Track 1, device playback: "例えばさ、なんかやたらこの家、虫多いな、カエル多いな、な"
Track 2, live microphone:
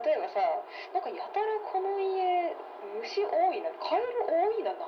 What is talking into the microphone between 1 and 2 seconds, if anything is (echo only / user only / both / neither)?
echo only